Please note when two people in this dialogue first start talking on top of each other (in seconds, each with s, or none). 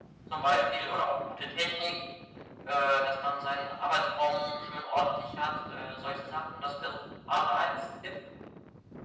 none